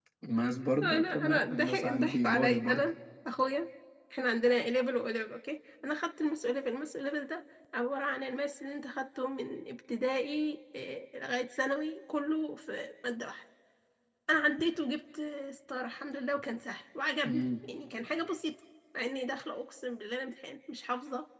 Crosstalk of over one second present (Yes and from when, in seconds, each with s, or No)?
Yes, from 0.8 s